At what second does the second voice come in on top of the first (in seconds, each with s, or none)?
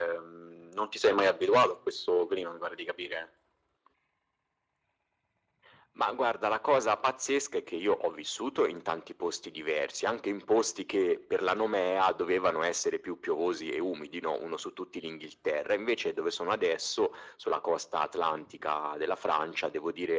none